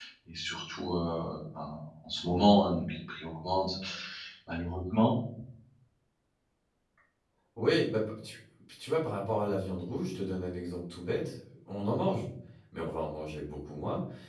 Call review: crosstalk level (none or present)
none